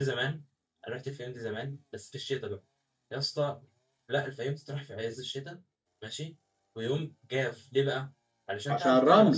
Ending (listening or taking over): listening